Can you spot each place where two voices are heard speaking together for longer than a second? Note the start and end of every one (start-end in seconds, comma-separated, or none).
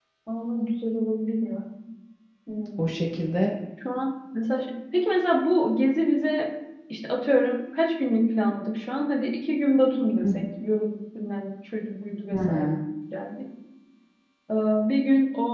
none